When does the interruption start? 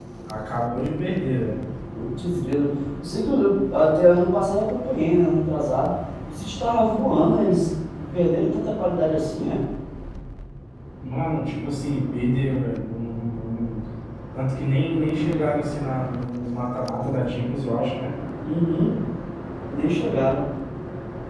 none

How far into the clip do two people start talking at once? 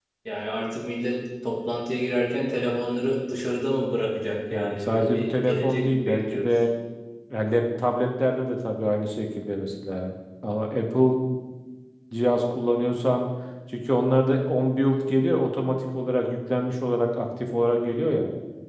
4.5 s

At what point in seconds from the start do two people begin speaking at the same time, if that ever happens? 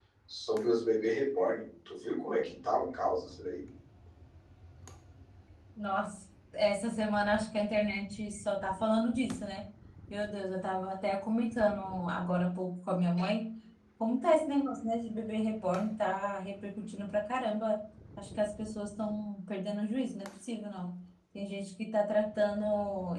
none

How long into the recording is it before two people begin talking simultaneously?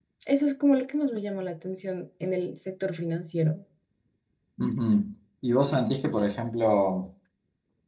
none

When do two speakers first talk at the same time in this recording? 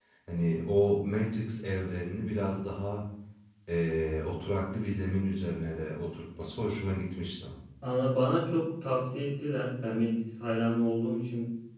none

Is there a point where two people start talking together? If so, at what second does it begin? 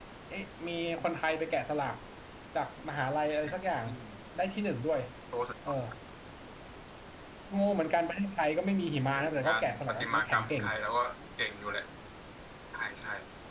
9.2 s

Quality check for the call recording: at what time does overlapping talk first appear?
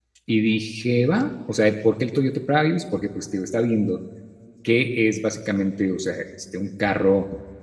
none

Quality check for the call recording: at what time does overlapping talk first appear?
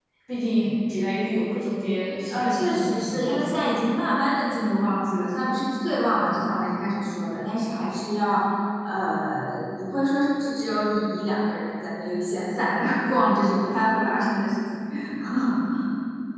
2.3 s

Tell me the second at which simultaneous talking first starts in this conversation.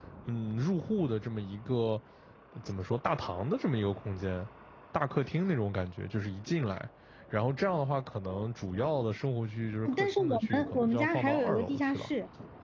9.8 s

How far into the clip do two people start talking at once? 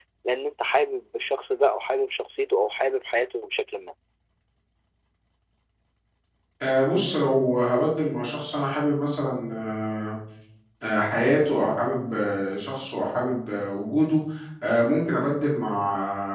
none

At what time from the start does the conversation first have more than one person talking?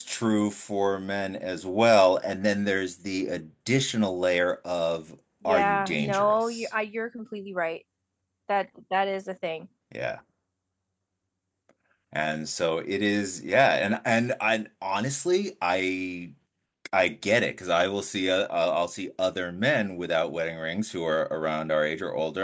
5.5 s

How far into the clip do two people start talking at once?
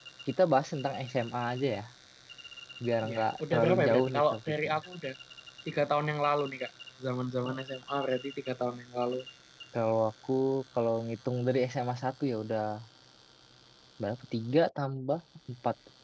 3.1 s

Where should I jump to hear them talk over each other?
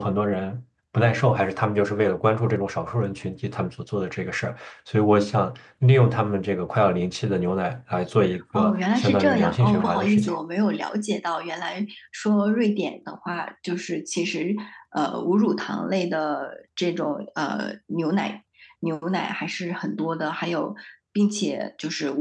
8.5 s

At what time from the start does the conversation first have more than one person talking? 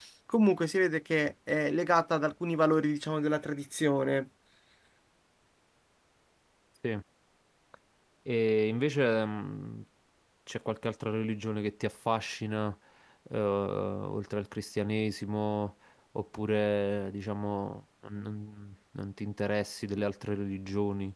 none

